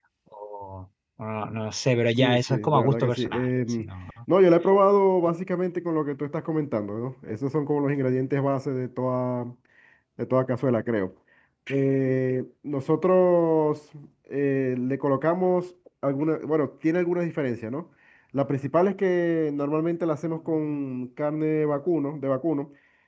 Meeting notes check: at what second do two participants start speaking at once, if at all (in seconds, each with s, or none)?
2.2 s